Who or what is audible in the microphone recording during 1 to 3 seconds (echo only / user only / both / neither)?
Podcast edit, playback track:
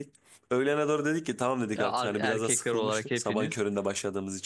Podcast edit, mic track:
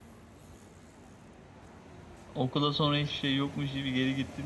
user only